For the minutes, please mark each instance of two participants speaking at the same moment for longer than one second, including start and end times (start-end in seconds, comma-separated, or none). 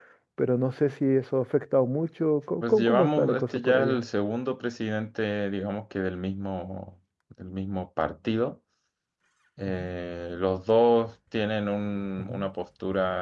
2.6-4.0